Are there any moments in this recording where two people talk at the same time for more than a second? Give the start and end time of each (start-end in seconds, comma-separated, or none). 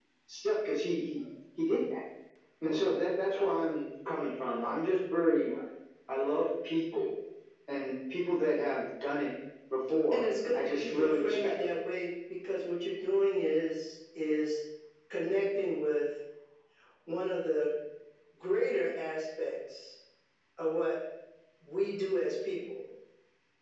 10.1-11.6